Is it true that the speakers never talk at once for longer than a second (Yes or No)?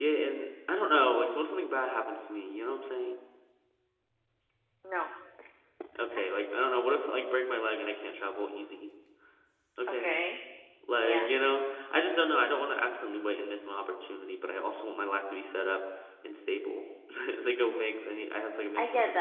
Yes